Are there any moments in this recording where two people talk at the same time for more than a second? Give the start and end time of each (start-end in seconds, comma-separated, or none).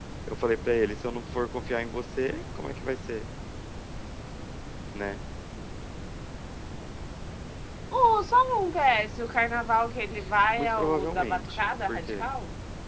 10.6-12.3